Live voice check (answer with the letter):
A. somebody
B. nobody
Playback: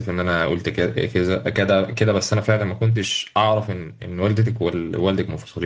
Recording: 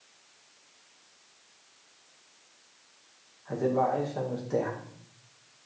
A